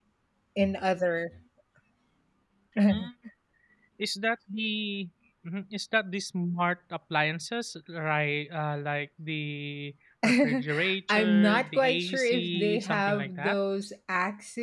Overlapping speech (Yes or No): Yes